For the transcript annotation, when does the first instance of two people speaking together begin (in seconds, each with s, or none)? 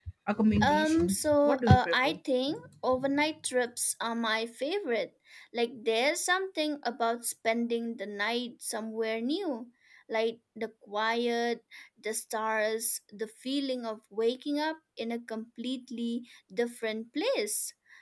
0.6 s